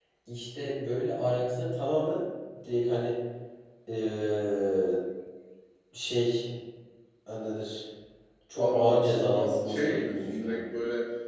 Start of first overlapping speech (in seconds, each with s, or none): 8.6 s